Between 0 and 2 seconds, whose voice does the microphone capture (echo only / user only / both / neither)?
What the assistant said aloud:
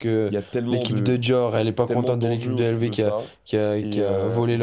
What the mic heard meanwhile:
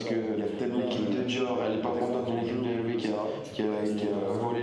both